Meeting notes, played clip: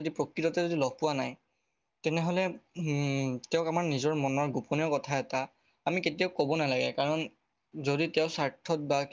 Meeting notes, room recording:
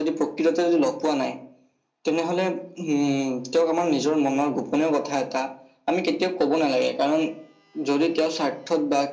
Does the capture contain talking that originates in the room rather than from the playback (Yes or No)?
No